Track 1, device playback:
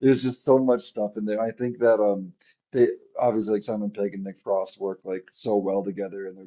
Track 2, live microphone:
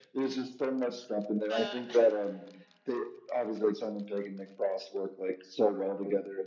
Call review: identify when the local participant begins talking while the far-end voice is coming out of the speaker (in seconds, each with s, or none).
1.5 s